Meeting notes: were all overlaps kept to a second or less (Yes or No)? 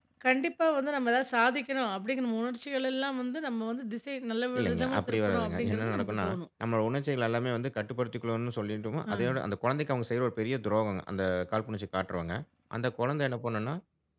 No